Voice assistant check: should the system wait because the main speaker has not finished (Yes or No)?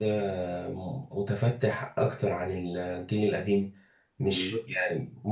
Yes